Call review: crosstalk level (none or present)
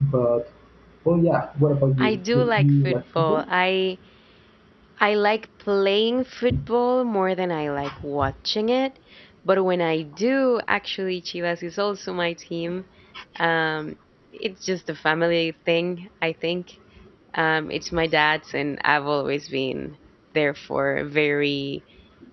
present